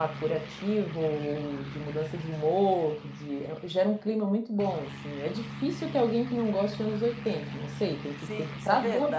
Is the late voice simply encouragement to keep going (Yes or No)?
No